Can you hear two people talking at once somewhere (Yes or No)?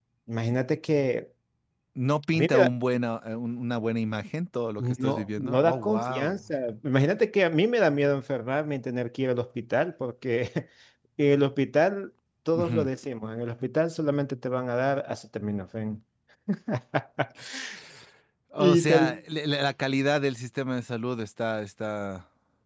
Yes